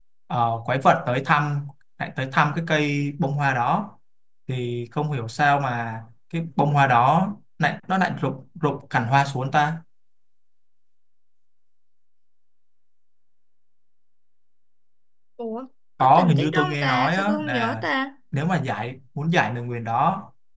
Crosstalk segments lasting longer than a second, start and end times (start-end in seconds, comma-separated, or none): 16.0-17.8